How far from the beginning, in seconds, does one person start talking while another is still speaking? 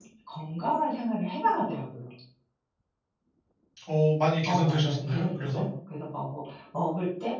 4 s

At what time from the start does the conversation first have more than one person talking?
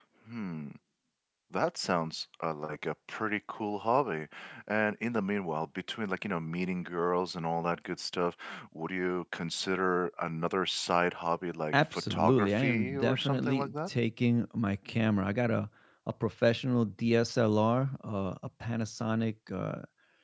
12 s

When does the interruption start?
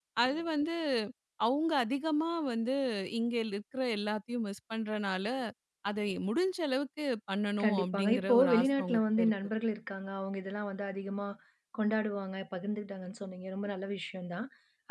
8 s

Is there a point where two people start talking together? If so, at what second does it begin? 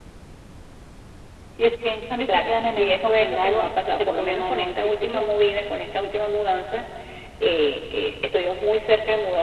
2 s

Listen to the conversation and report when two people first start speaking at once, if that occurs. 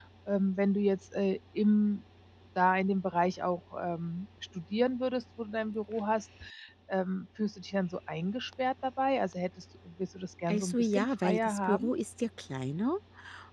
10 s

